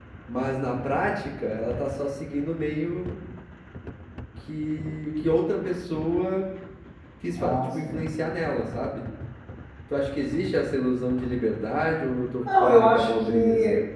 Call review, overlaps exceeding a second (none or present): present